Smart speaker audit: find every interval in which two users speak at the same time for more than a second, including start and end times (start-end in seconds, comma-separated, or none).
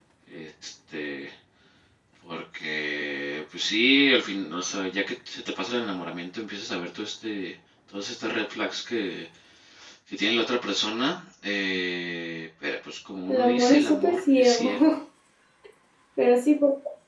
13.3-14.7